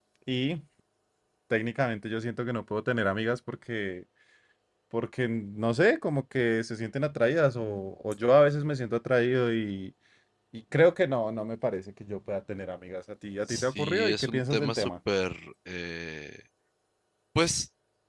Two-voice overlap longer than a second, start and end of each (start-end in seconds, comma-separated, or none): 13.5-14.9